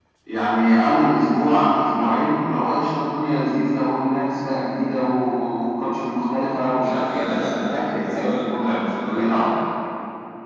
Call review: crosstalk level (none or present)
present